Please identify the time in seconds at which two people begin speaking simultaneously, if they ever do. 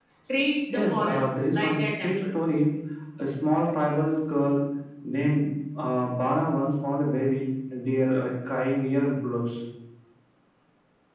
0.7 s

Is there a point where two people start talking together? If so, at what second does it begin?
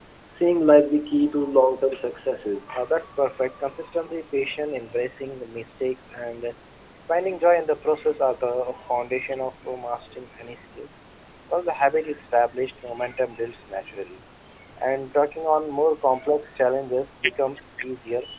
none

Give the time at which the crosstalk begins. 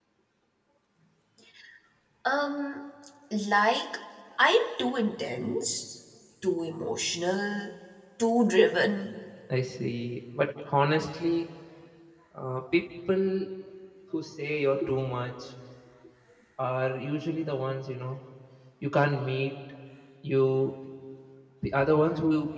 none

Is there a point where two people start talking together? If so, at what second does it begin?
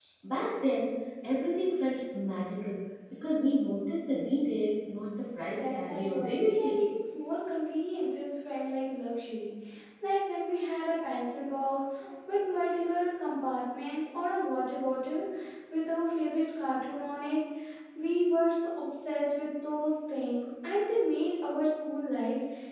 5.5 s

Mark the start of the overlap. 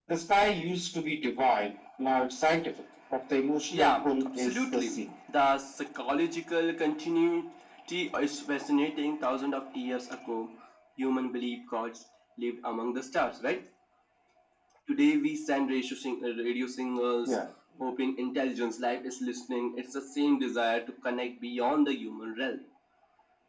3.7 s

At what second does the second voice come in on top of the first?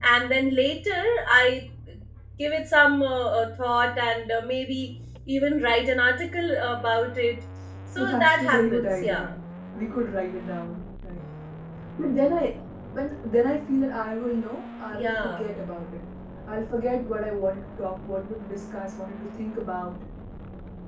8.0 s

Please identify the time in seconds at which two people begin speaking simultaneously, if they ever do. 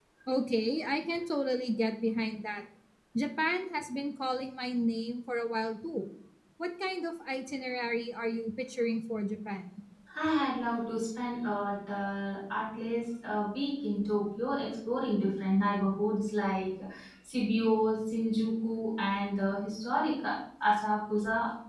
none

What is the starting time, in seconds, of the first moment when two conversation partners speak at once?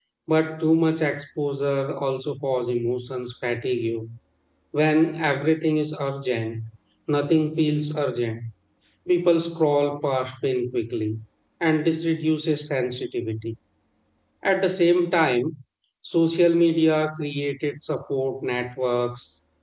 none

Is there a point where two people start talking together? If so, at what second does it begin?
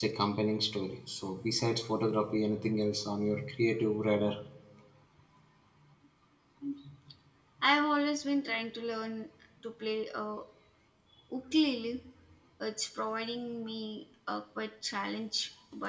none

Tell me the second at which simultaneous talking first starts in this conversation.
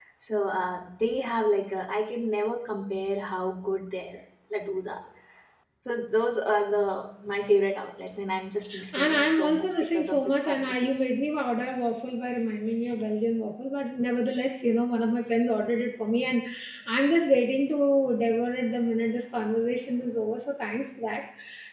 8.9 s

